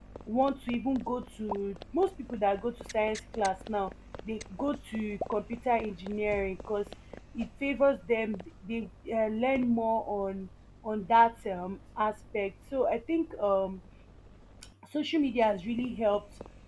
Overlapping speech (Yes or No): No